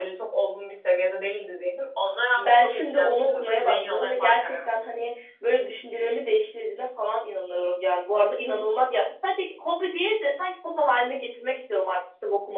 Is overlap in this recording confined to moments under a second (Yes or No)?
No